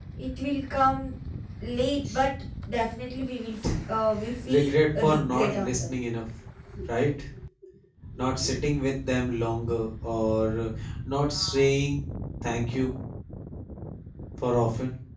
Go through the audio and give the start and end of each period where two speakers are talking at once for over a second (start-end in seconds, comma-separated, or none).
4.5-5.9